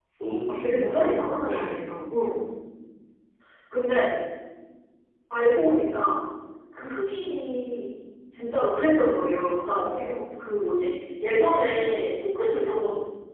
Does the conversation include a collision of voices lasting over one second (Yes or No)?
Yes